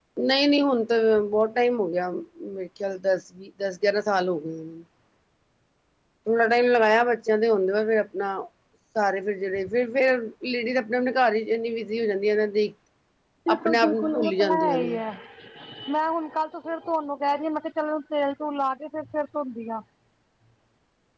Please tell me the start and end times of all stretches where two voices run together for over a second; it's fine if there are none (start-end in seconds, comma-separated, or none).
13.5-15.0